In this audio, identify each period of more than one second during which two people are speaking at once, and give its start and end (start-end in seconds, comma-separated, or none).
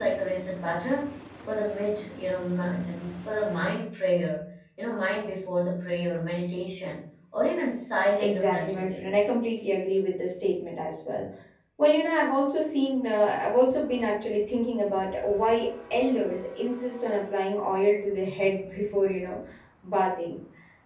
8.2-9.4